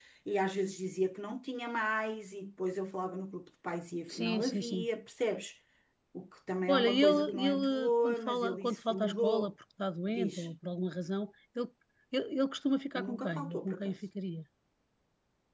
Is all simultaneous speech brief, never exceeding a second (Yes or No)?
No